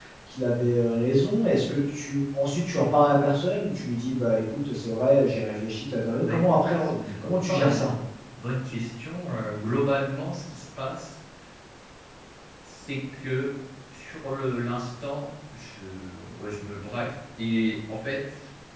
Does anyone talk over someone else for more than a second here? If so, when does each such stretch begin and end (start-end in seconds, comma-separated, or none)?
6.2-7.9